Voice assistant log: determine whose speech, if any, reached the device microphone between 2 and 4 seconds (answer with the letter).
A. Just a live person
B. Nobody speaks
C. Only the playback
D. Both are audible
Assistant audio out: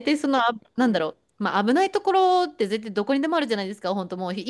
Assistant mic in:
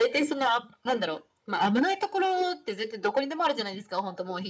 C